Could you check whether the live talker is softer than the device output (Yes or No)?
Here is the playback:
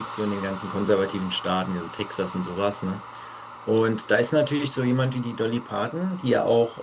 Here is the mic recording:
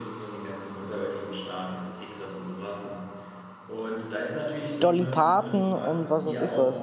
No